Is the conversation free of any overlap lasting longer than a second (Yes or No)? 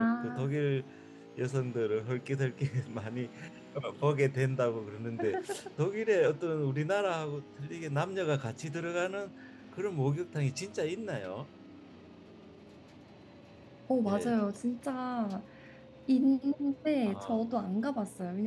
Yes